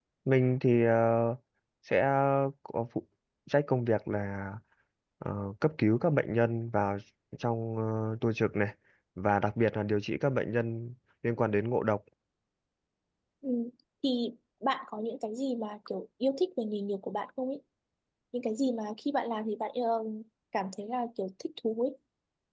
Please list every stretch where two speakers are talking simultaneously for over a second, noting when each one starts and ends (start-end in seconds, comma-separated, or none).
none